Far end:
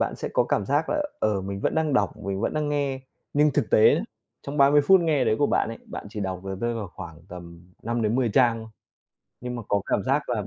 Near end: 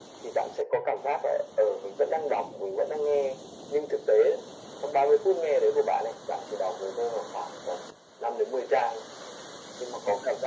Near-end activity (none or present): none